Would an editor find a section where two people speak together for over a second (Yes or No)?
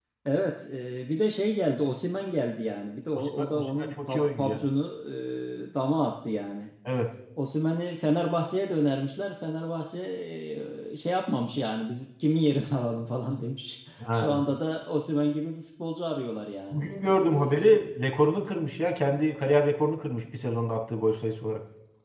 Yes